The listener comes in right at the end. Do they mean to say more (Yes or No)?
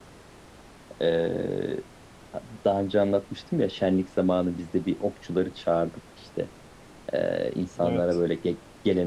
No